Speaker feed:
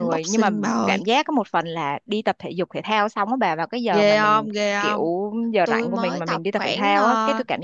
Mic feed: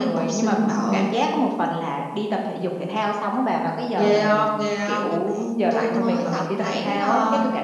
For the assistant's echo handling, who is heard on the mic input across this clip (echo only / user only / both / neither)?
both